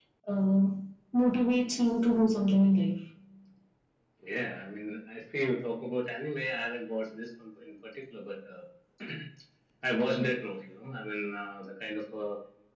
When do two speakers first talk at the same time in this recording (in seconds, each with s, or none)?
none